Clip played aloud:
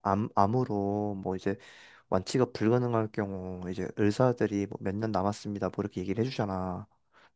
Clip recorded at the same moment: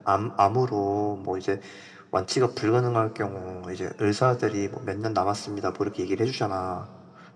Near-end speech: none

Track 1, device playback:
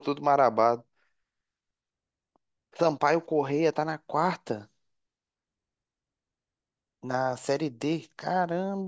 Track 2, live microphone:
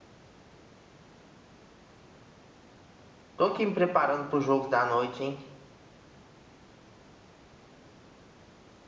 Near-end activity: present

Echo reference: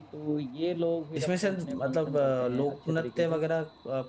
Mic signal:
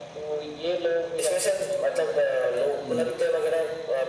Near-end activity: present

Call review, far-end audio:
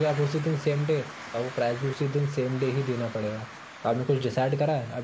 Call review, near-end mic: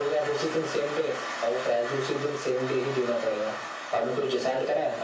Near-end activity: none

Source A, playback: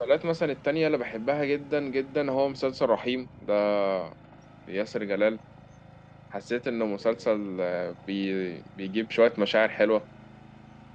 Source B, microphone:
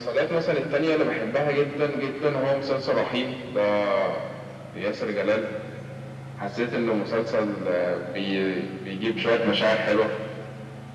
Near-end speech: none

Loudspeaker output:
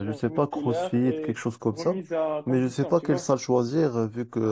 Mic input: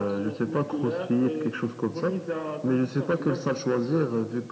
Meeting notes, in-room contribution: none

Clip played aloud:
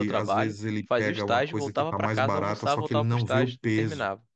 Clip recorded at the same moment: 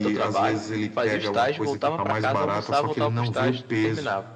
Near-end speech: none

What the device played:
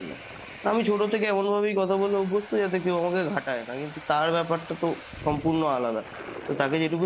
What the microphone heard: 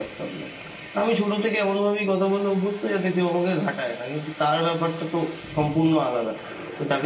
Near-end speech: none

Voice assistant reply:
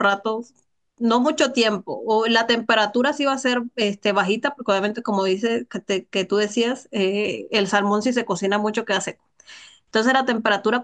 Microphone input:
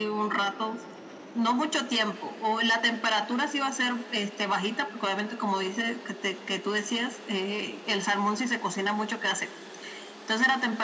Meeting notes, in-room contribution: none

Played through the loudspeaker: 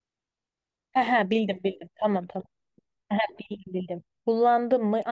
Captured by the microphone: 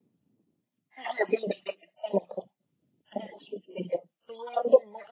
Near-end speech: none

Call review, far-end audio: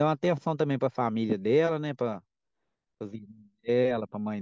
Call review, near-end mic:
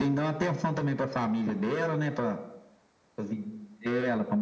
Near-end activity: none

